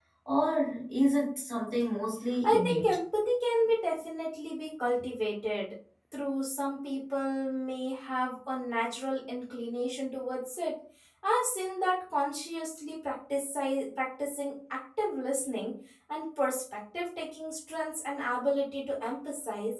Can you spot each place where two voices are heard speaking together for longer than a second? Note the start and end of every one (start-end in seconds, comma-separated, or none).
none